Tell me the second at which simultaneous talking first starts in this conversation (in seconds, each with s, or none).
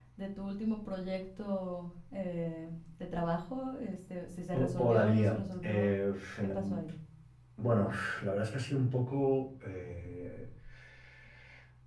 4.5 s